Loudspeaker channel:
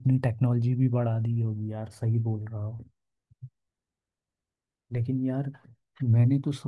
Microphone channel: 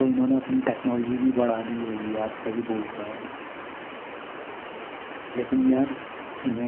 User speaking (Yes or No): No